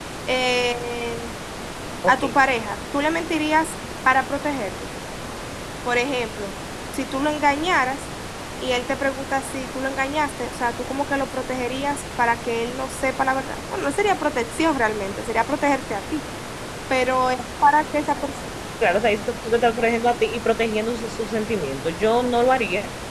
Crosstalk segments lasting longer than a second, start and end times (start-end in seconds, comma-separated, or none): none